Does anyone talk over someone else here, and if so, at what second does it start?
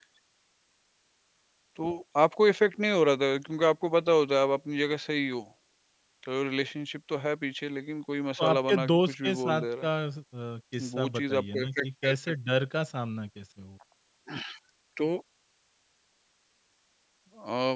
8.4 s

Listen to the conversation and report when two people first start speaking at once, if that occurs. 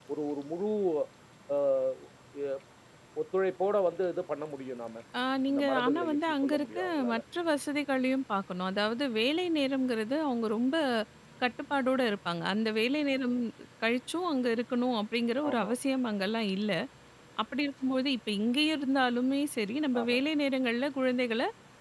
5.5 s

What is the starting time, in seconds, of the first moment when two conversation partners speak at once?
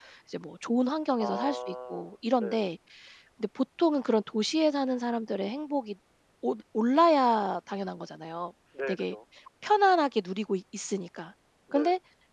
1.2 s

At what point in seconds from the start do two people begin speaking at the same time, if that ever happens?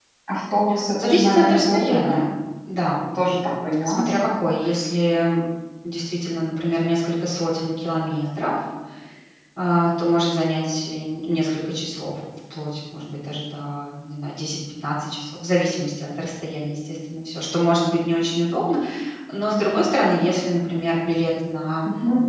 1.0 s

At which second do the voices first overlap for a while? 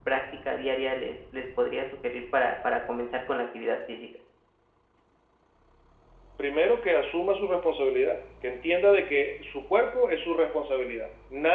none

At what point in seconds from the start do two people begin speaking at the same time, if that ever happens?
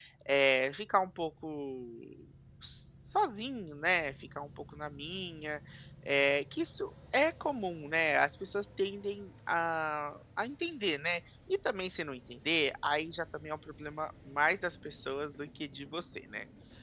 none

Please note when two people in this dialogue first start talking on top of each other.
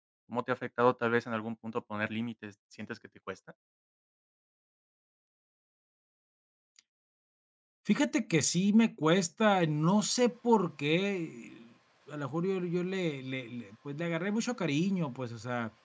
none

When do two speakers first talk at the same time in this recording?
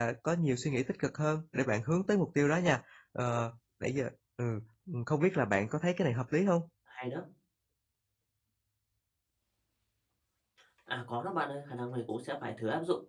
none

